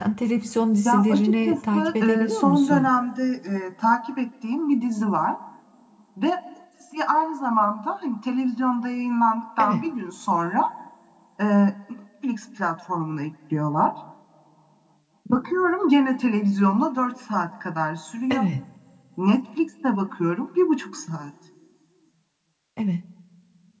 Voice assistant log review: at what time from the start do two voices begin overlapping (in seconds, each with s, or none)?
0.8 s